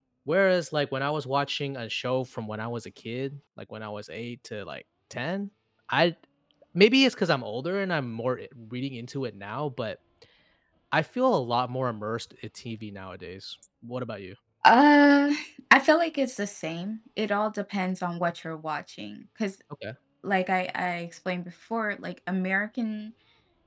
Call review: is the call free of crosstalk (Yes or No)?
Yes